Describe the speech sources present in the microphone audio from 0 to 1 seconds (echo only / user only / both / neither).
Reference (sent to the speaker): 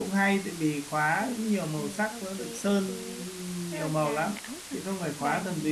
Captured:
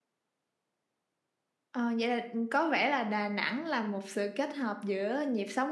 neither